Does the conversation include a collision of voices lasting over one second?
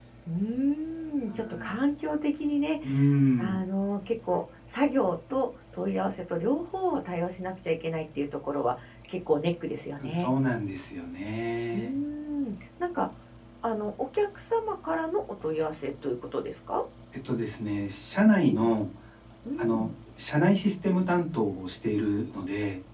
No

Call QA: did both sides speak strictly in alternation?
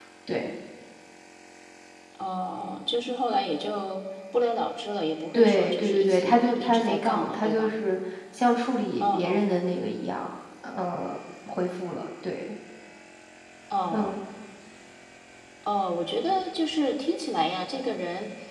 No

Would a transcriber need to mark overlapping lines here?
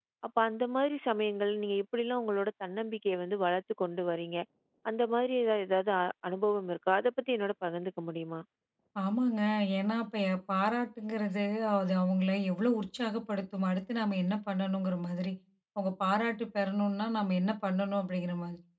No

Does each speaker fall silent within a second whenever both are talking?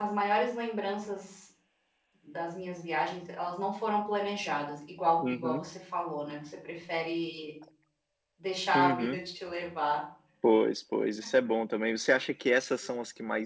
Yes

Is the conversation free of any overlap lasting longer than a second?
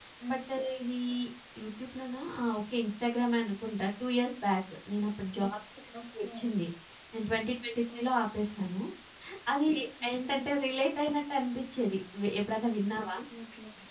Yes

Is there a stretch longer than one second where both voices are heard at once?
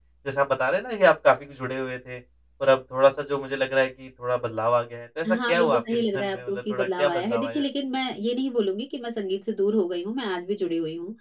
Yes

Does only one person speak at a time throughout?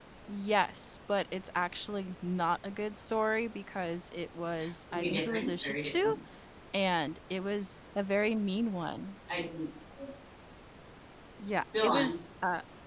No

